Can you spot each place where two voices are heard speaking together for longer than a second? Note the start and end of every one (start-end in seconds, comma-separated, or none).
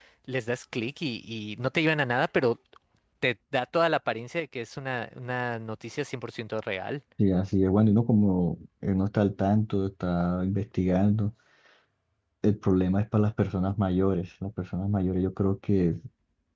none